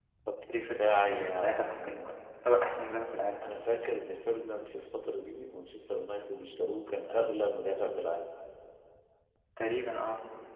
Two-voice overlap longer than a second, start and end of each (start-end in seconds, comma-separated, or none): 0.5-2.1